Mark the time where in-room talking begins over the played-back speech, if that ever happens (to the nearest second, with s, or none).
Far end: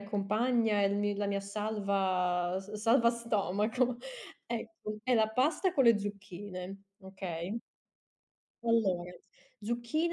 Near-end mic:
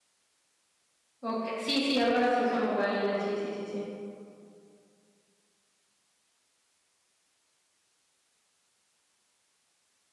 1 s